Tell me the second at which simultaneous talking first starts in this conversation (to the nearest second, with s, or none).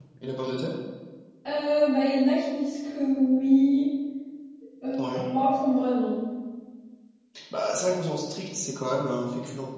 none